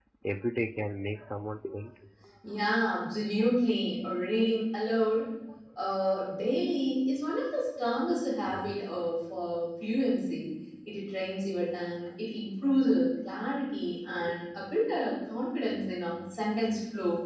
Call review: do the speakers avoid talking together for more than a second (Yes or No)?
Yes